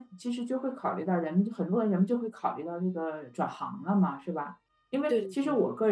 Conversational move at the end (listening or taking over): listening